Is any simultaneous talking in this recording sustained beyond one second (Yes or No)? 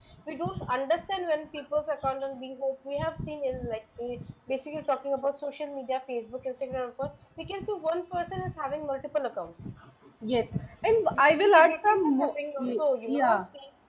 Yes